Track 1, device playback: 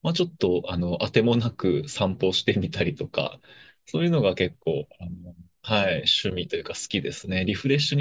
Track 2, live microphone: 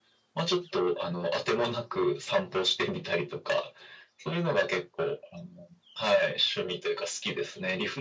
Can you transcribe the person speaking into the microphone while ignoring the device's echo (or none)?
none